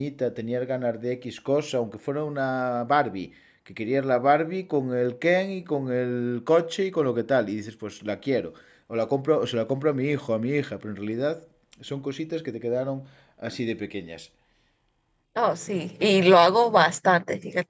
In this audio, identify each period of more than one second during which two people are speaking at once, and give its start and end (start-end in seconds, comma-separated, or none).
none